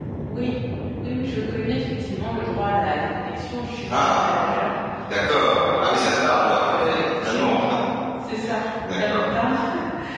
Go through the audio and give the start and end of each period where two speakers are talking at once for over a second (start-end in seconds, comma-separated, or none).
5.3-7.5